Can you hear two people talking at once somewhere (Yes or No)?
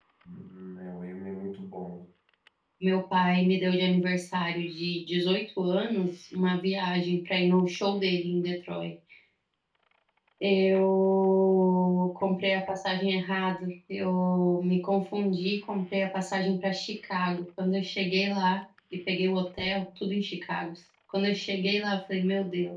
No